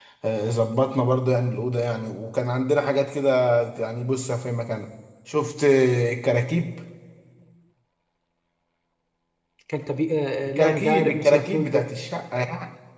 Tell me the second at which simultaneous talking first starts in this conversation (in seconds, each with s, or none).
10.4 s